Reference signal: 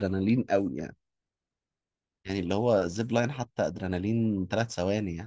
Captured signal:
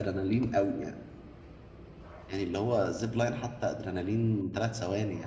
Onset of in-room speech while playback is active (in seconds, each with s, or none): none